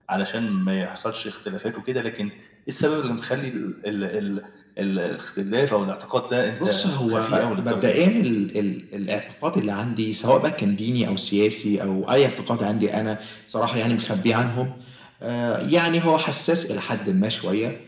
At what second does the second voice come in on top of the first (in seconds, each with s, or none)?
6.6 s